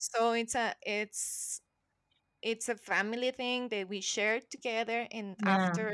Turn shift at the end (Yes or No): No